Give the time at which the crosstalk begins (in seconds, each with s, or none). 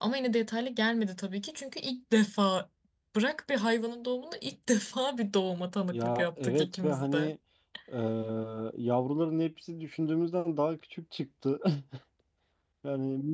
5.9 s